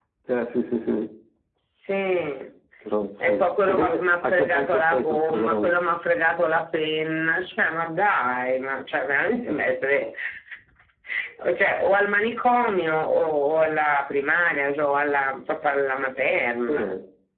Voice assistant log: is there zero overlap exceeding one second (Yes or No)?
No